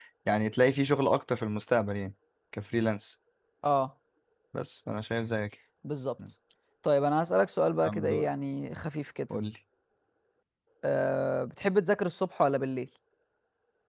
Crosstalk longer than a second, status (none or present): none